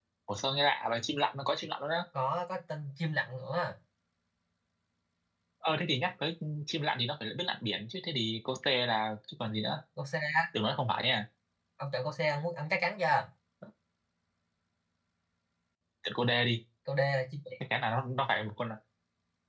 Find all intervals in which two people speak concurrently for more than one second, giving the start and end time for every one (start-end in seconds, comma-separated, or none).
none